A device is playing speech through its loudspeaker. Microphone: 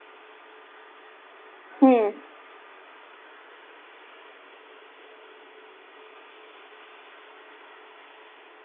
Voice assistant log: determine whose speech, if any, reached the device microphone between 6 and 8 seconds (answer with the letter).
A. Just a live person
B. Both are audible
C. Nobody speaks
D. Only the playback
C